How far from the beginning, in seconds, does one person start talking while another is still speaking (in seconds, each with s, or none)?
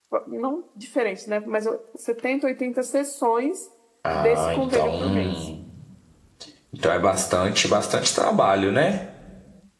4.1 s